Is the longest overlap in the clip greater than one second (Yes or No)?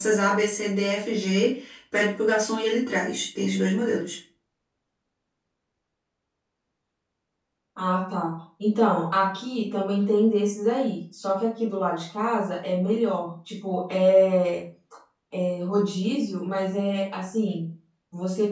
No